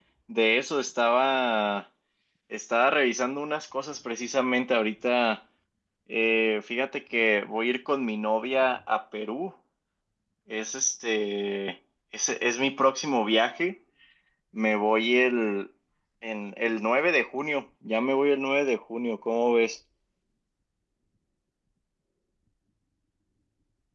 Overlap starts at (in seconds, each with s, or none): none